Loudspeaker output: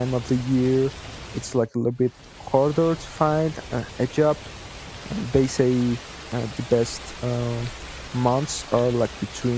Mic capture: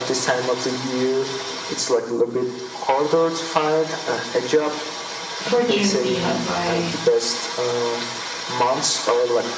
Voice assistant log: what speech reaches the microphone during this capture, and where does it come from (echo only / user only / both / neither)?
both